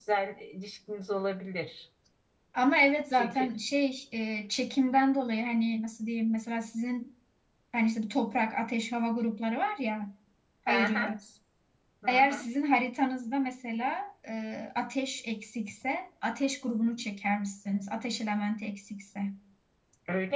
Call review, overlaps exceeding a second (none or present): none